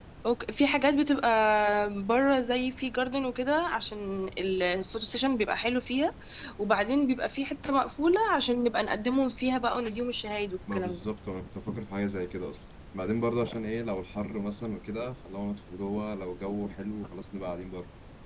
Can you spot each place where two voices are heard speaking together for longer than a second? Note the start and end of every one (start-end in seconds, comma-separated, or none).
none